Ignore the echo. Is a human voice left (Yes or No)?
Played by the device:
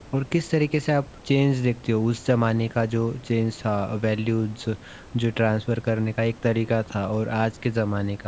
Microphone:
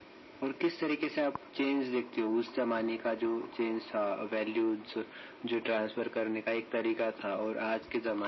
No